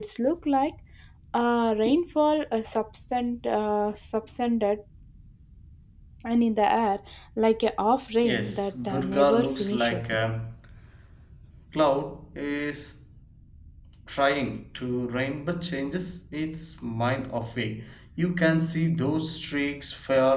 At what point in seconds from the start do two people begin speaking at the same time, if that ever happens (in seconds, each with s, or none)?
8.2 s